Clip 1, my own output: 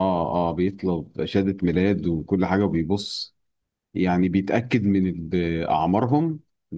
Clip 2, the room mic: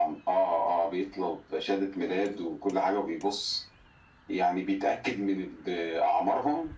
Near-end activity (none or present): none